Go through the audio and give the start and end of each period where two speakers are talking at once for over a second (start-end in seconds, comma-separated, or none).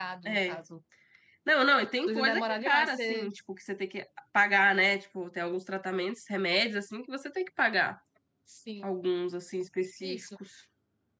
2.1-3.3